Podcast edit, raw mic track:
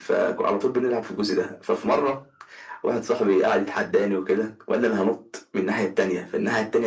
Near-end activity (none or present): none